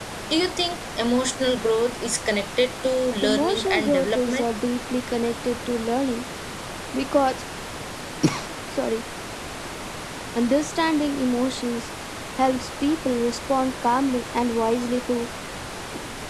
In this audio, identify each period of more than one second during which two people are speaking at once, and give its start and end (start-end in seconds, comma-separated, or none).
3.2-4.5